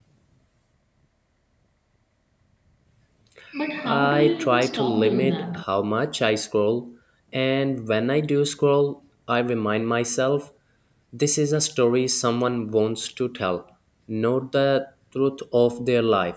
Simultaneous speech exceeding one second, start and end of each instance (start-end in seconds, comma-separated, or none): 3.8-5.6